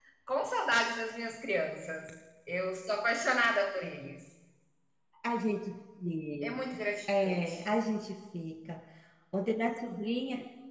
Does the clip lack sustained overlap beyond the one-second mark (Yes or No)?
Yes